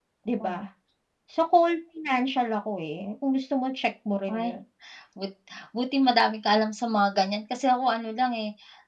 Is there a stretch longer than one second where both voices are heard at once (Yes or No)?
No